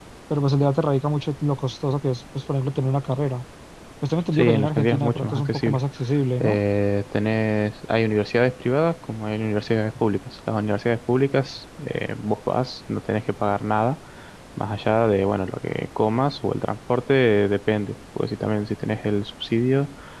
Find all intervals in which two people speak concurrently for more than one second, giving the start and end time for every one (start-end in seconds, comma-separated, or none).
4.3-5.8